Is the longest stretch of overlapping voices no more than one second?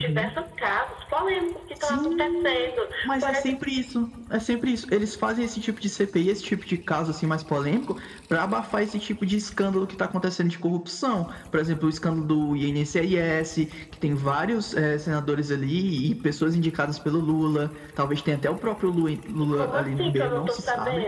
No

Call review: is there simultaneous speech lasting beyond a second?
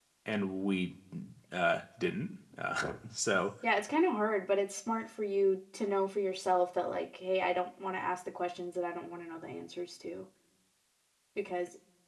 No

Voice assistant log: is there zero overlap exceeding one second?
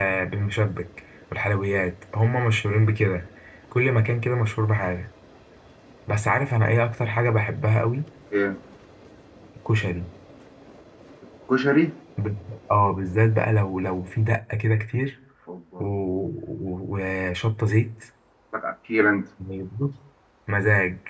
Yes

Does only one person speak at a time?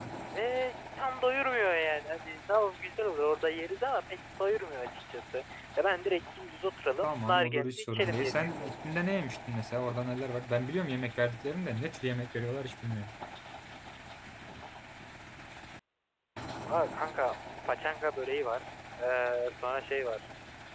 No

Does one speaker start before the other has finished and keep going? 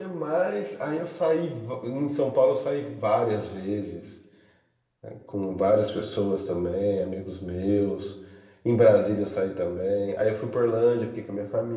No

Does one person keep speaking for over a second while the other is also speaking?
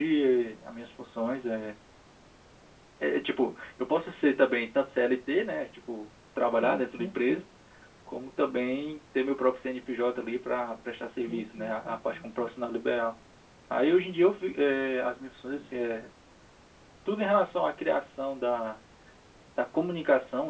Yes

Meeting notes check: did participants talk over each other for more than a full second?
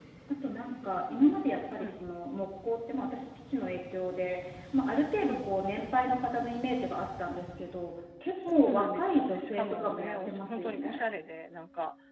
Yes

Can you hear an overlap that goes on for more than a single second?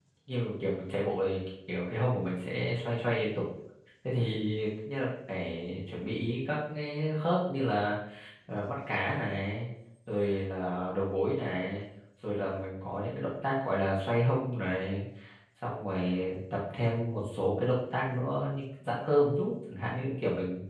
No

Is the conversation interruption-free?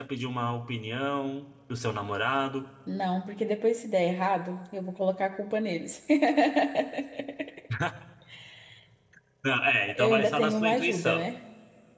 No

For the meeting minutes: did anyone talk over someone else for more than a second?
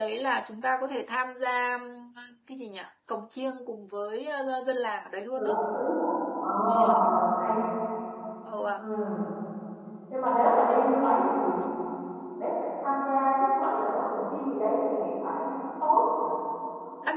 No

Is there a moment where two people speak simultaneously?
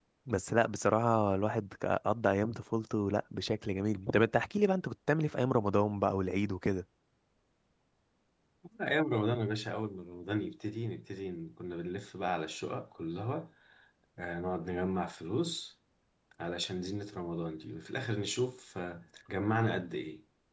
No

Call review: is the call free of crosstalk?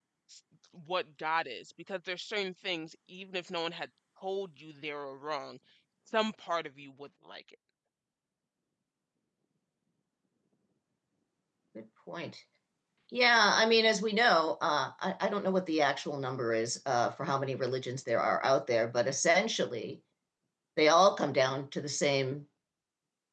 Yes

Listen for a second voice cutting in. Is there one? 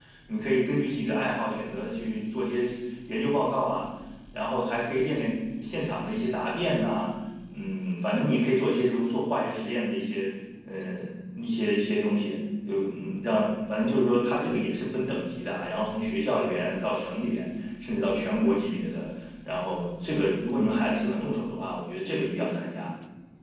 No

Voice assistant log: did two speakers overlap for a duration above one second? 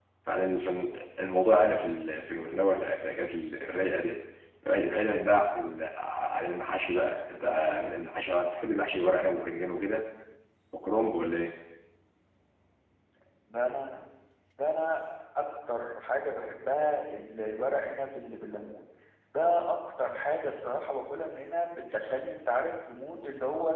No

